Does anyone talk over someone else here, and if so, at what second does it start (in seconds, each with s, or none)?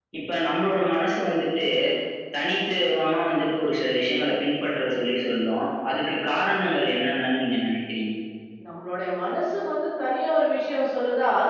none